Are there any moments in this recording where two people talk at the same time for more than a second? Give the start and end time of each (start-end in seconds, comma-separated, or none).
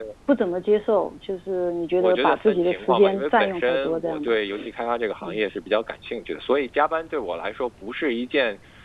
2.0-4.3